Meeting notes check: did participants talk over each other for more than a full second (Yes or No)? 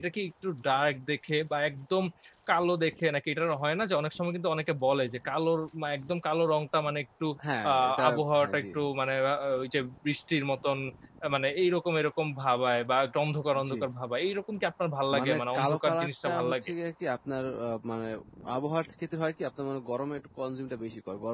Yes